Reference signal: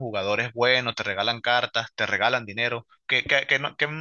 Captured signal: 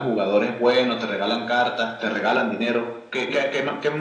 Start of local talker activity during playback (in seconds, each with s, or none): none